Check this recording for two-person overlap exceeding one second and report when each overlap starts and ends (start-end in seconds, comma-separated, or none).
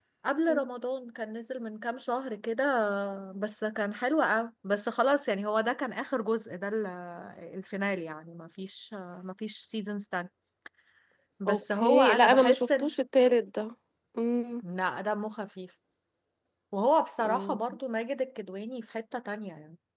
11.5-12.9